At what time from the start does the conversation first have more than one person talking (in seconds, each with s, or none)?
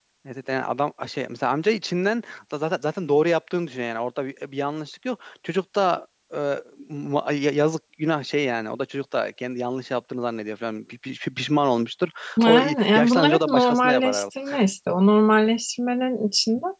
12.4 s